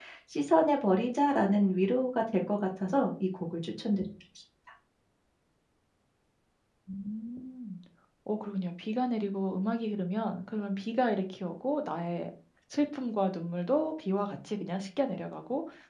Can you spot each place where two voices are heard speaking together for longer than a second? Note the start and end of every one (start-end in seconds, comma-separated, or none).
none